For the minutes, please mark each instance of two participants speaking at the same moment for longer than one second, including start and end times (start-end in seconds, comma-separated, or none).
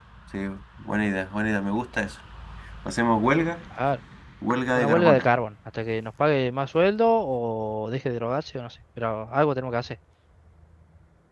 none